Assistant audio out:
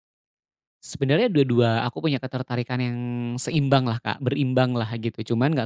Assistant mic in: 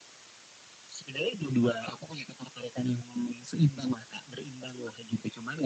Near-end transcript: none

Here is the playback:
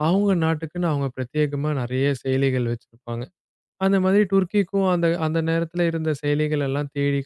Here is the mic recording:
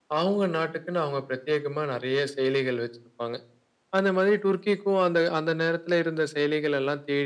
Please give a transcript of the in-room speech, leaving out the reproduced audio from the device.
none

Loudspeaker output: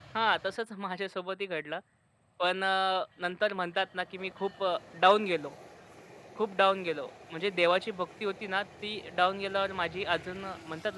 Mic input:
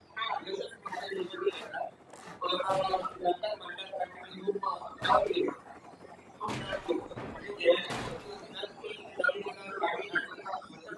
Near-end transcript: none

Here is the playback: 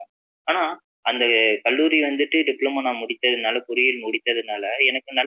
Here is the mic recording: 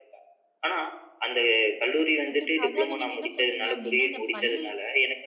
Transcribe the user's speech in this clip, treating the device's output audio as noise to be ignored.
கண்டிப்பா. அதாவது நீங்க என்ன சொன்னீங்க அப்டின்னா, அந்த பள்ளி

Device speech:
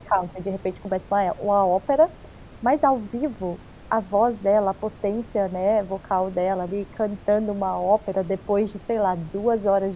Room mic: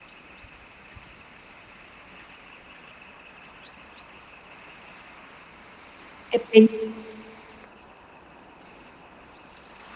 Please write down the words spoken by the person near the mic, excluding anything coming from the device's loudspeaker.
é bem

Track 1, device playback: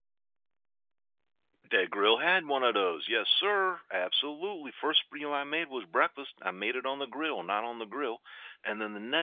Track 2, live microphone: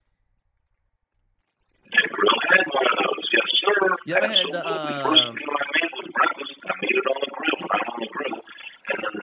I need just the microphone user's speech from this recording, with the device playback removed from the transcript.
You ever had the uh

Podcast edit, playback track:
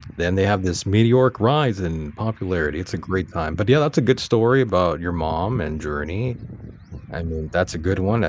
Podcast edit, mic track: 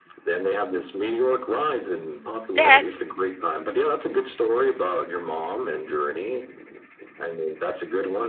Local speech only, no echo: That's

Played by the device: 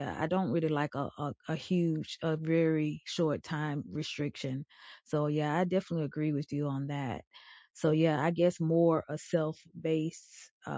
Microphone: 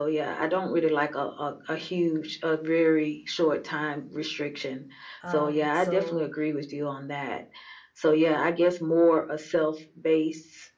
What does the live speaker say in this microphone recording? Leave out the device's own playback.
Um so

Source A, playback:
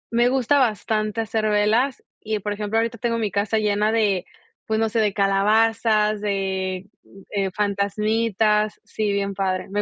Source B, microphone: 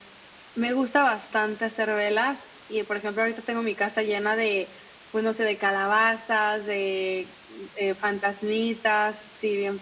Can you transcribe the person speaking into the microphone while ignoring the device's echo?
none

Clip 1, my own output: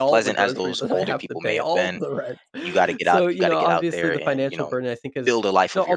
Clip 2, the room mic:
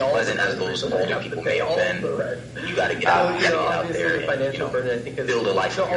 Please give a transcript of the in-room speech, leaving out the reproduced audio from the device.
ah

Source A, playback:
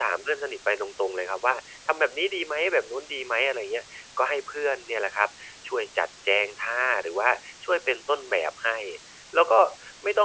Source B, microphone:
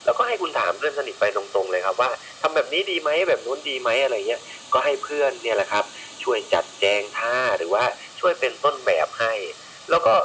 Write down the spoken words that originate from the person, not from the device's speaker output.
none

